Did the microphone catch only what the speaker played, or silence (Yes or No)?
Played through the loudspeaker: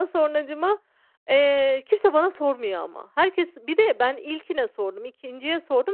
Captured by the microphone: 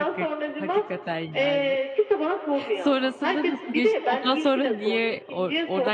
No